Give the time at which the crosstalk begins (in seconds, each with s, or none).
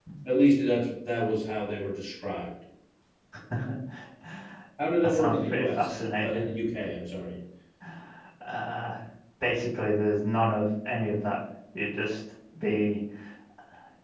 5.0 s